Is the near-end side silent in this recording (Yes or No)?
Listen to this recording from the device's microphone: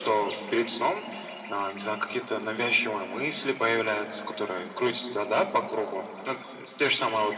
Yes